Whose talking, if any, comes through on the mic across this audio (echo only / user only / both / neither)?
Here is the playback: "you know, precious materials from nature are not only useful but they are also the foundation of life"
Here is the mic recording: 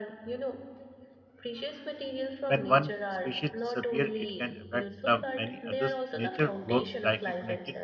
both